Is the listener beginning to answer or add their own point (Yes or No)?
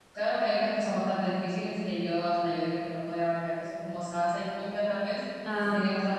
No